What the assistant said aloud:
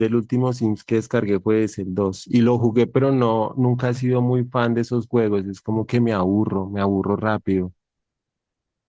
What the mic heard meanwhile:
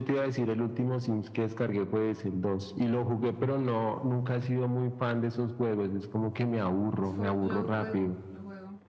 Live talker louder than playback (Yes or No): No